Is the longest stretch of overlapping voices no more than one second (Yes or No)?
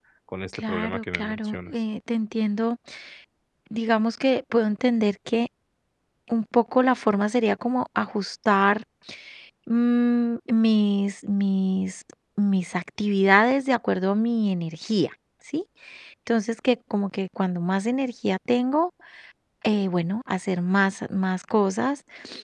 No